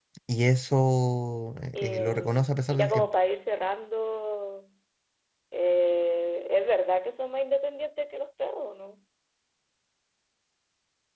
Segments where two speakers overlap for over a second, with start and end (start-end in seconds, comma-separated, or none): 1.8-3.1